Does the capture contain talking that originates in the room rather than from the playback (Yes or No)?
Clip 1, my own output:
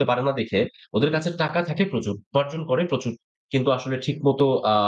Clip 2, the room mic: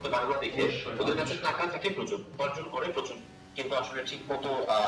Yes